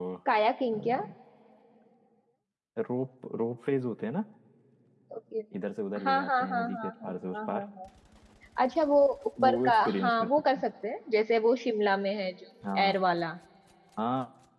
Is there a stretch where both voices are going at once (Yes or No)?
Yes